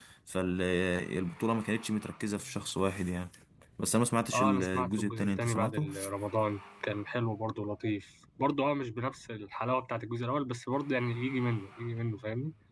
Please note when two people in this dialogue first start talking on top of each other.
4.3 s

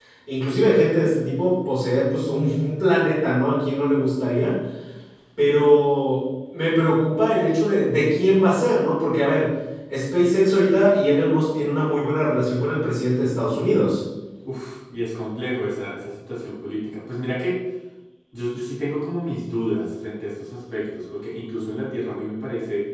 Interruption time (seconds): none

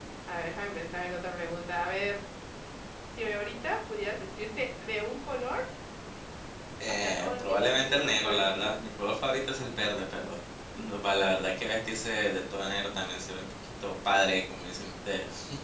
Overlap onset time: 7.0 s

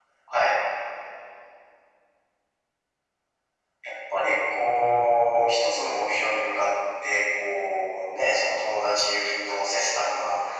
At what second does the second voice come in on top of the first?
none

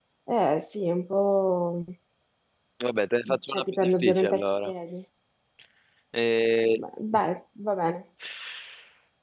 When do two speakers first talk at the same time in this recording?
3.5 s

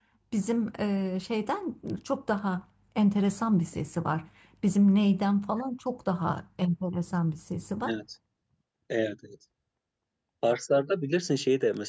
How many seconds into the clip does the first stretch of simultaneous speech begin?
none

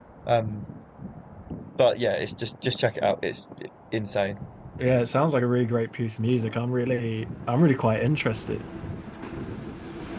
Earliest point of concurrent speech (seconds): none

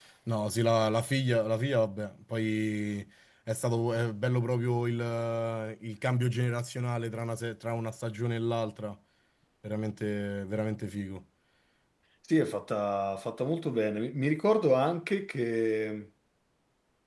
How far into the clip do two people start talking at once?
none

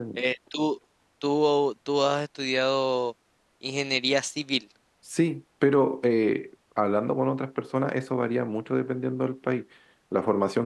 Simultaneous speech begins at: none

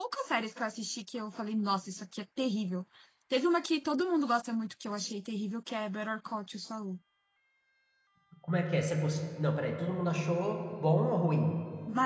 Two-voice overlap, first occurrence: none

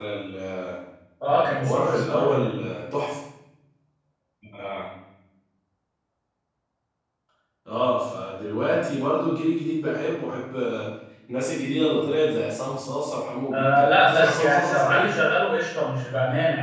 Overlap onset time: 1.3 s

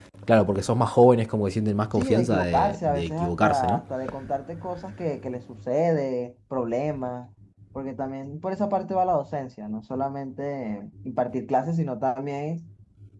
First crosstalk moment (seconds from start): 1.9 s

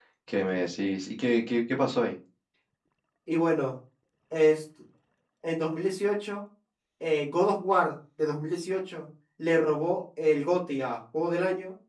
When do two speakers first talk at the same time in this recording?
none

